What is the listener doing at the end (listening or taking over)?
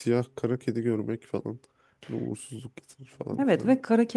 taking over